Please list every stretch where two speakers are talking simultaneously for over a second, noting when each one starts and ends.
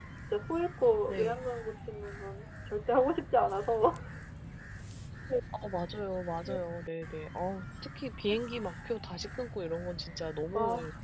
none

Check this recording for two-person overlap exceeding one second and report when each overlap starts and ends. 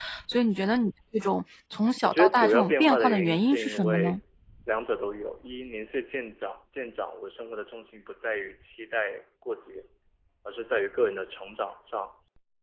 2.0-4.2

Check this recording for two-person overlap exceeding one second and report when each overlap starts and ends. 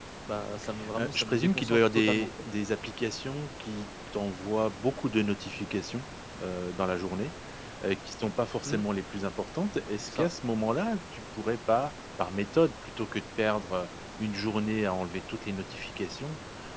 1.0-2.5

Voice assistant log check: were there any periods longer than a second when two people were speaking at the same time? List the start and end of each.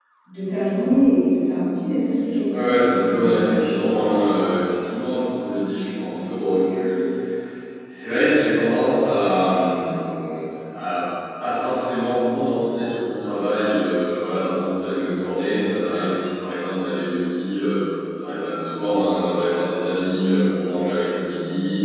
2.5-3.9

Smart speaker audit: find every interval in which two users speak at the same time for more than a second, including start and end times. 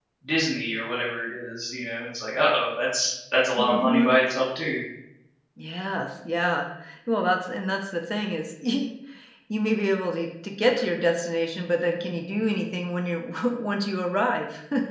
none

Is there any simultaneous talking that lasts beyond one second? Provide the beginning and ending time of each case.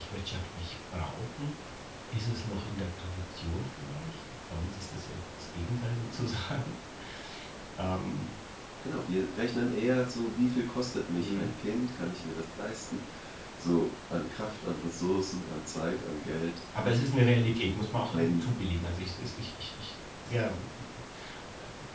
none

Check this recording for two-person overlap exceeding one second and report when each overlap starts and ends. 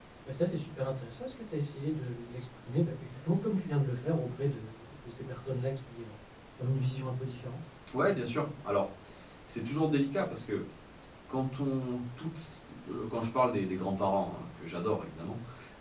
none

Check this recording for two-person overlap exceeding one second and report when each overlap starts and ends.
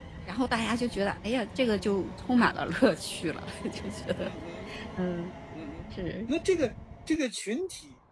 none

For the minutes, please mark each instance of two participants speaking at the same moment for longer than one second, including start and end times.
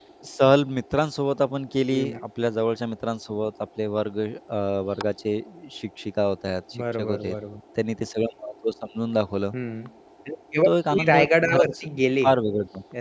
10.6-11.8

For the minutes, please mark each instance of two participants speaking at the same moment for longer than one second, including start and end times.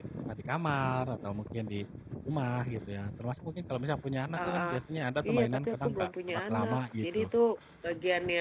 5.3-7.3

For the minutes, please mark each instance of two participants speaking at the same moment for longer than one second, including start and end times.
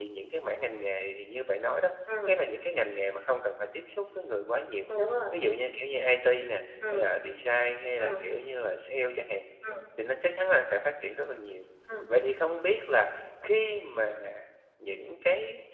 none

